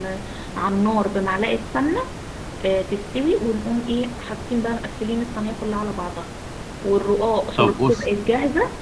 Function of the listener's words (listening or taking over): listening